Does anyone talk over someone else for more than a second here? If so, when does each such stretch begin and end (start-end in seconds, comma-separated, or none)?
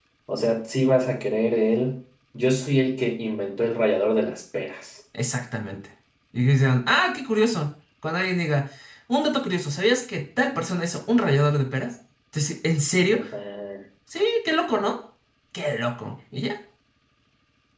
none